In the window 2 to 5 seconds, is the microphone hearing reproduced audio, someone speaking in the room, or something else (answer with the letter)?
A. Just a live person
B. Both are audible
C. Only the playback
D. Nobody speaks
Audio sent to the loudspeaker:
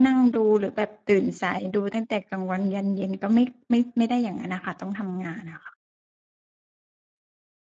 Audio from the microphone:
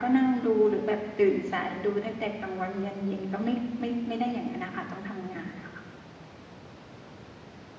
C